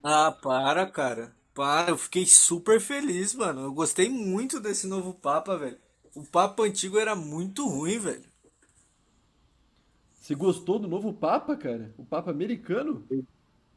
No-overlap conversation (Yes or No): Yes